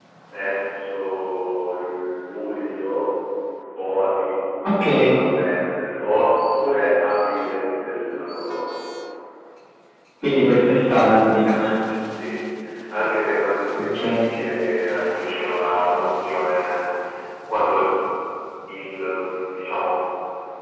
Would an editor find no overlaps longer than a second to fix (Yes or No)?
Yes